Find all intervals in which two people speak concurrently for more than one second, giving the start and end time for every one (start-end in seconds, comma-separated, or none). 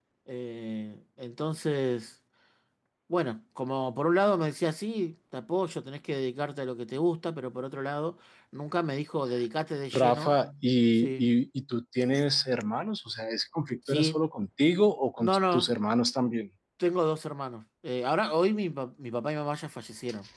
none